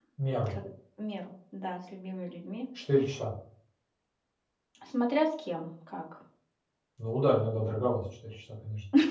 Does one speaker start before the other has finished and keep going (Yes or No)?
No